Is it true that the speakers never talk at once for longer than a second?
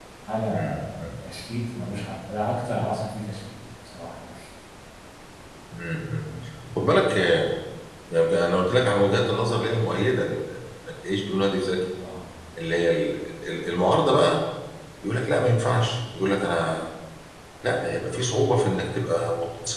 Yes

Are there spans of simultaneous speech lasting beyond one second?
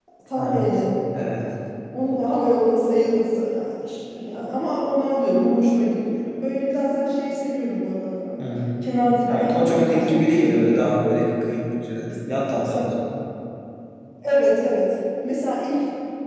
Yes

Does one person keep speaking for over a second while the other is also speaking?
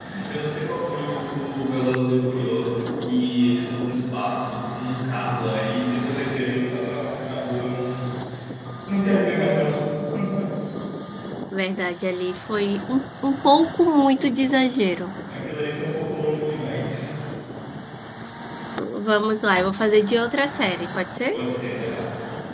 No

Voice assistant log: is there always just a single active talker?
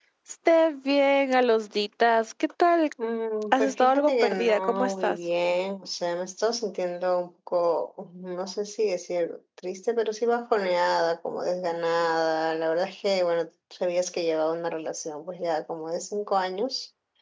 No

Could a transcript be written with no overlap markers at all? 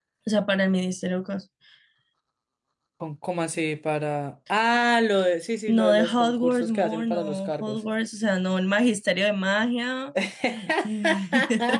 No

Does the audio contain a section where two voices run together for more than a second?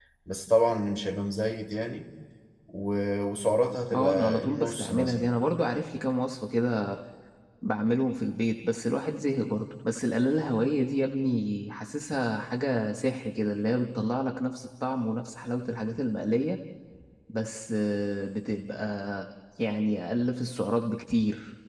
Yes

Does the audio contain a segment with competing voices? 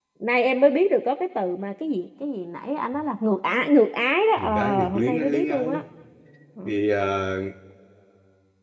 Yes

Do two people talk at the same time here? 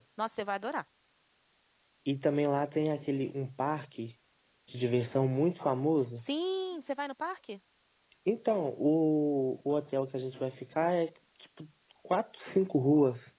No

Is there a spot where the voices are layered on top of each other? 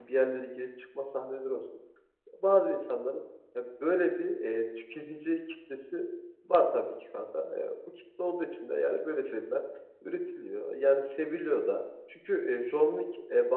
No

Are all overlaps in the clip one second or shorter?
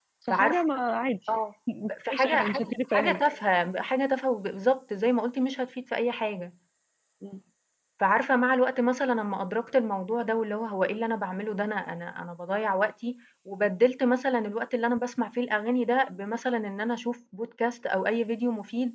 No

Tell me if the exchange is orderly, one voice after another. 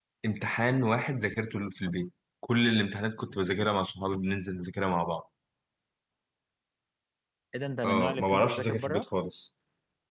No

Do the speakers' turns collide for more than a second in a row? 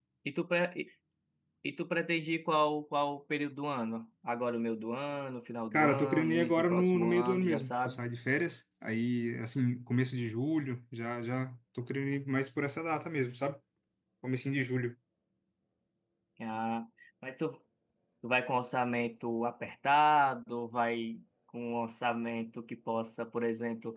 Yes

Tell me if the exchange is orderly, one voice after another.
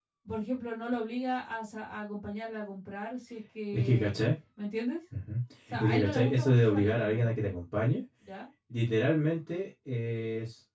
No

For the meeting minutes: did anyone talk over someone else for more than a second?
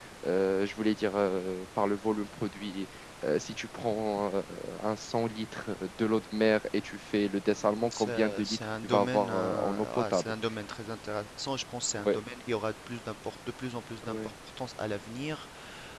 Yes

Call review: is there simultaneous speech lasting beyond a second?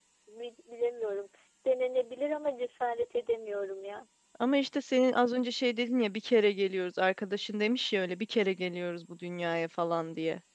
No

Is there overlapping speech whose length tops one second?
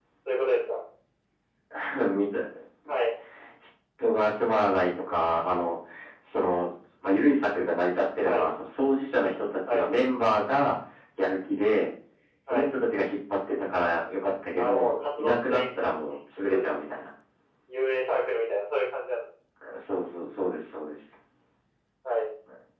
Yes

